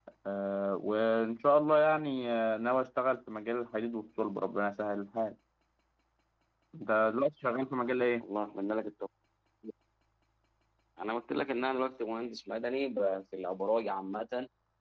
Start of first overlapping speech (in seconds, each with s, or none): none